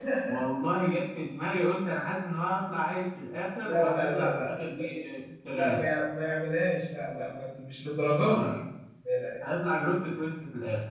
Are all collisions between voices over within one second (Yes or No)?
No